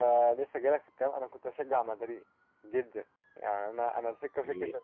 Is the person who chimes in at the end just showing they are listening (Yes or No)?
Yes